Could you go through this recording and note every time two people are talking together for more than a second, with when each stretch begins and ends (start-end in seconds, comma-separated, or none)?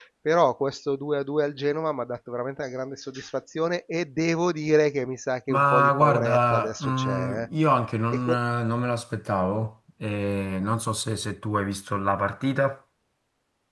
5.5-7.5